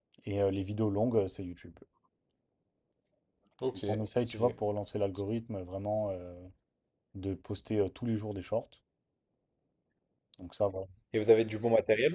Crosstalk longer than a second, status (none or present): none